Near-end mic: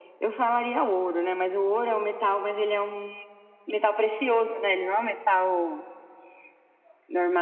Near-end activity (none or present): none